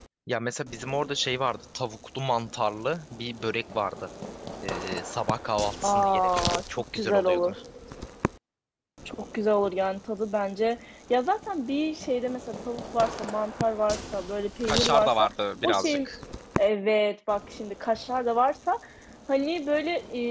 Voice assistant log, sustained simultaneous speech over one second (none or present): present